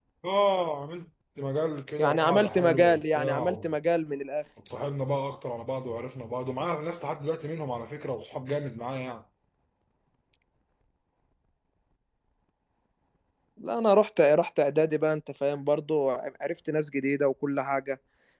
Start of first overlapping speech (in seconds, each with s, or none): 2.0 s